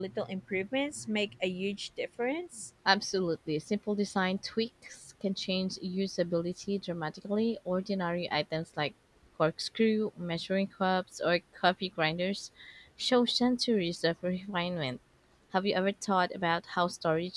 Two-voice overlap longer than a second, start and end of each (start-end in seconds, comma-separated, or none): none